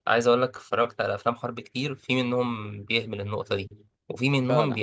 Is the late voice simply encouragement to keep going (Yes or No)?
Yes